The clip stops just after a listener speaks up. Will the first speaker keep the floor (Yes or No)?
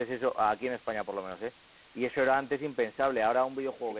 Yes